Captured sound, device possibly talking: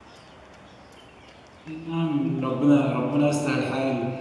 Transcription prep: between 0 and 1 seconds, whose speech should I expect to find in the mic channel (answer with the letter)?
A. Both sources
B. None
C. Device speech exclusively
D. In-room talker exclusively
B